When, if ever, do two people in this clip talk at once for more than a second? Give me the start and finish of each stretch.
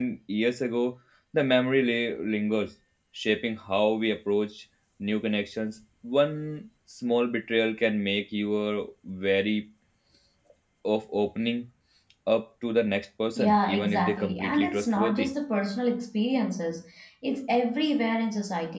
13.4-15.3

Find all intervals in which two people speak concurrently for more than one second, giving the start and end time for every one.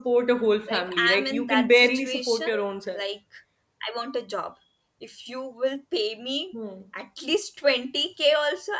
0.7-2.5

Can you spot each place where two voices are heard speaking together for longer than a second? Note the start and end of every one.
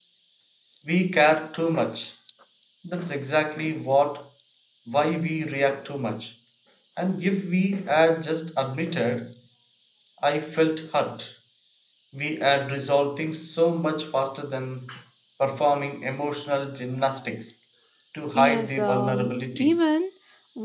18.4-19.8

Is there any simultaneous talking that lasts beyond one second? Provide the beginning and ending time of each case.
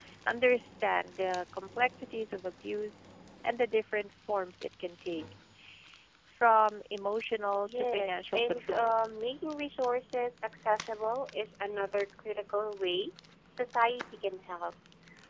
7.7-9.0

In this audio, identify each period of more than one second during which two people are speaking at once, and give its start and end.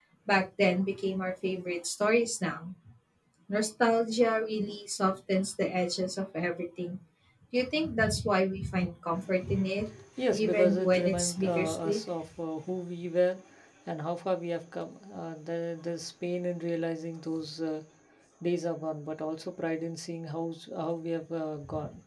10.3-12.0

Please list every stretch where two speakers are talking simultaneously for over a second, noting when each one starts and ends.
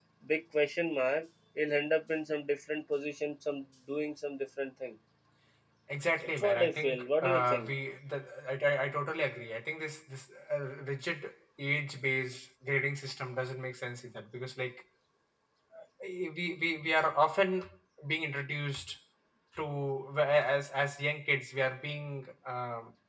6.2-7.7

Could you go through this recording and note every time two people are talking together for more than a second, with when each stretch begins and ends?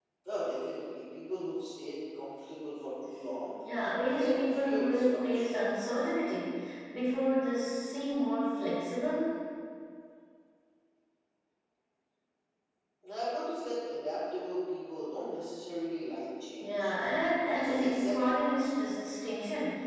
4.2-5.5, 17.5-19.0

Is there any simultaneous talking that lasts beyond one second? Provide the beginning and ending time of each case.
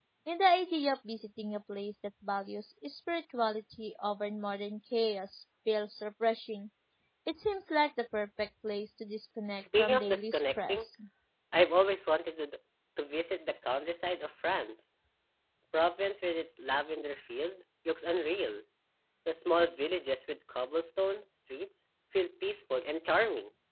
9.6-10.9

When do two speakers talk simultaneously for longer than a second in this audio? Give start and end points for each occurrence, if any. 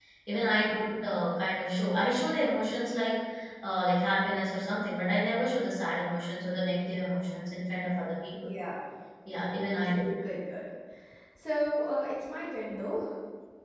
none

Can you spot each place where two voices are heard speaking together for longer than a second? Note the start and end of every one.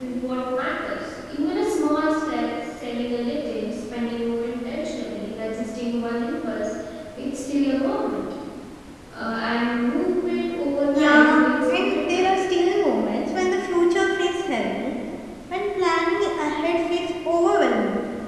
10.9-12.2

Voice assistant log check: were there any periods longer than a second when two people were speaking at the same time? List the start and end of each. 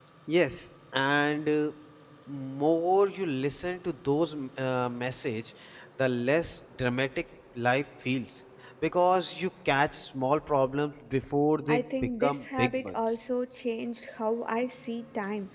11.7-13.2

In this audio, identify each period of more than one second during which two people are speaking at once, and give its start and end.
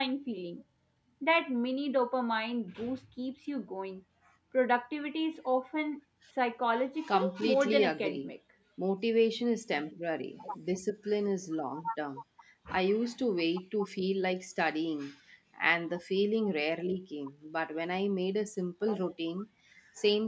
7.1-8.3

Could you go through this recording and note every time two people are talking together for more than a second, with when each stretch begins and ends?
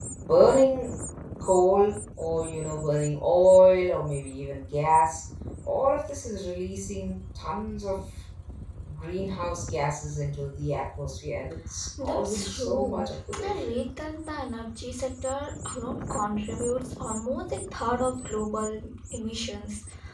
12.0-13.9

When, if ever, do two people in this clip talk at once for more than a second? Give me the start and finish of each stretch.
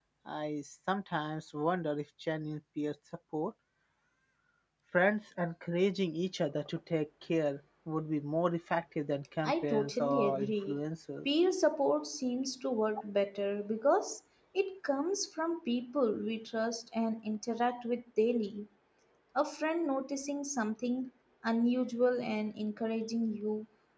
9.4-10.8

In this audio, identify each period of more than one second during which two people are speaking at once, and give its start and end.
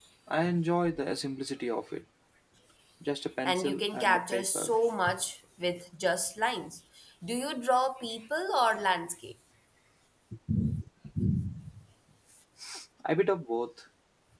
3.4-4.7

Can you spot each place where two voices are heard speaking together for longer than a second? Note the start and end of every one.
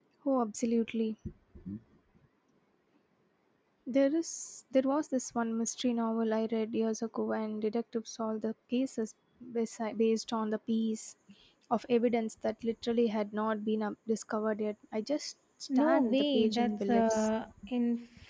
15.8-17.3

